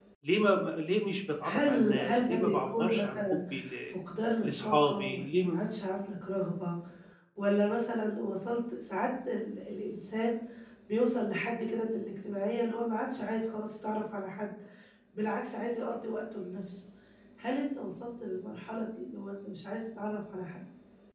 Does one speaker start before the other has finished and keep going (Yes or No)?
Yes